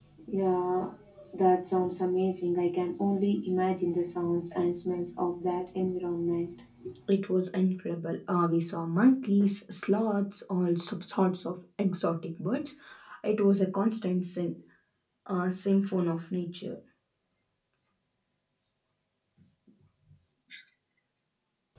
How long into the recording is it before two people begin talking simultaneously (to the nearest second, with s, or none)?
none